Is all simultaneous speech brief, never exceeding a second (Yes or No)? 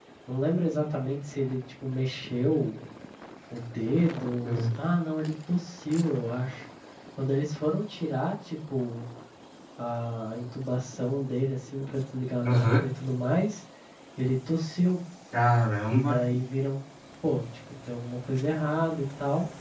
Yes